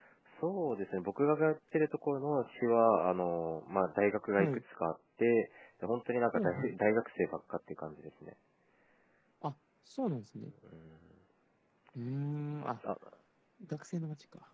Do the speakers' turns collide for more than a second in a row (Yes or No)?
No